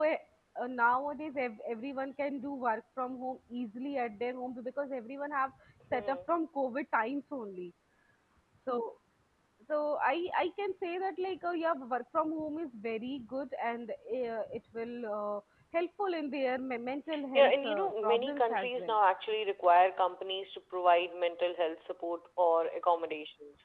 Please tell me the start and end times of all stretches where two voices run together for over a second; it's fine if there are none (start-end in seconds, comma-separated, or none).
17.3-19.0